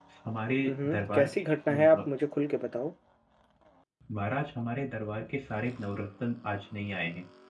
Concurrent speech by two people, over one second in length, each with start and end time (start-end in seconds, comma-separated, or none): 0.7-2.0